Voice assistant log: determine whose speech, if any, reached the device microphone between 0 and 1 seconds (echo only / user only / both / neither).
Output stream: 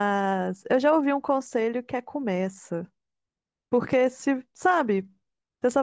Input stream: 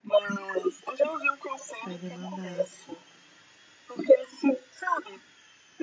echo only